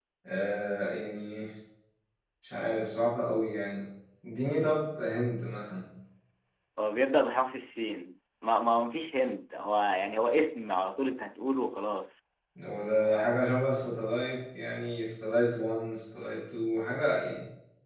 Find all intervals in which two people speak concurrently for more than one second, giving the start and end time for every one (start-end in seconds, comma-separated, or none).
none